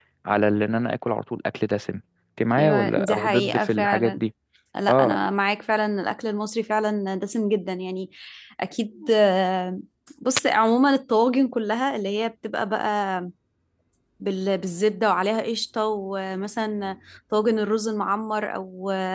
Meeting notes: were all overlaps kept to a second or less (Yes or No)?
No